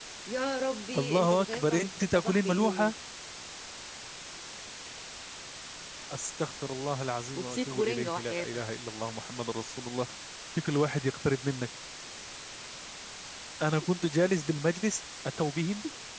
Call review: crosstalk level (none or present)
present